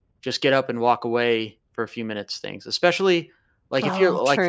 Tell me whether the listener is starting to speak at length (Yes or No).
No